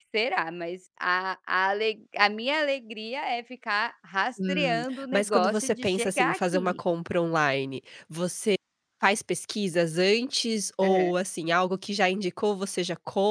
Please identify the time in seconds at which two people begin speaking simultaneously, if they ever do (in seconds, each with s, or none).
4.5 s